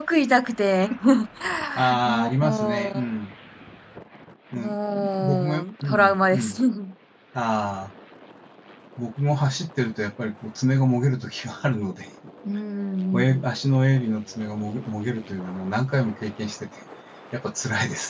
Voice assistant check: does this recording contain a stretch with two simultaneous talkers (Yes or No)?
Yes